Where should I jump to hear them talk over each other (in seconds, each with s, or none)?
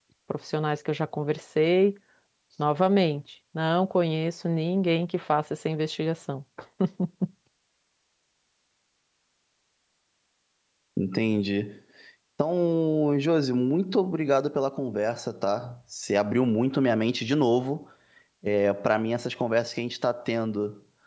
none